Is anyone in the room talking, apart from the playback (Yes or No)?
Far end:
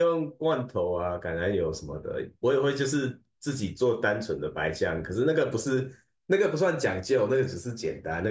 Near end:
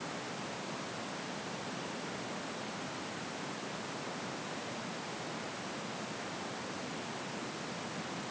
No